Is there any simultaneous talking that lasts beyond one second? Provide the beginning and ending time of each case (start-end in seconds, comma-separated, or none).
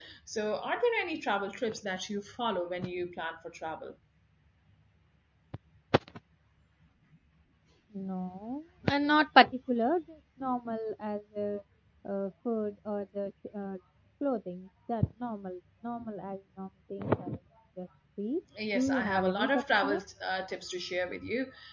18.7-20.0